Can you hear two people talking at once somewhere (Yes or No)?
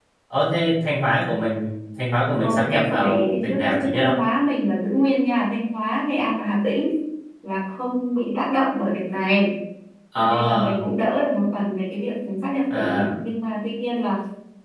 Yes